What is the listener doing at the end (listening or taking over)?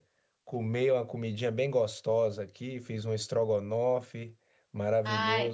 listening